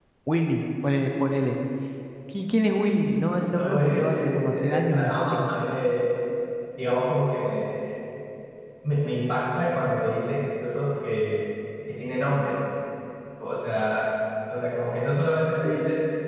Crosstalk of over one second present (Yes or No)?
Yes